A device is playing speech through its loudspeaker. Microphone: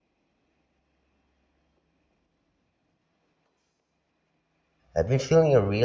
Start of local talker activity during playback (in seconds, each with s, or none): 4.9 s